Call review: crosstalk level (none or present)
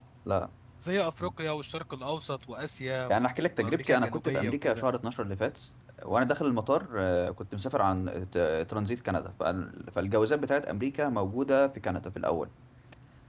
present